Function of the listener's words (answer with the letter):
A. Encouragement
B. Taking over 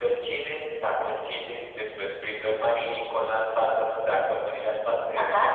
B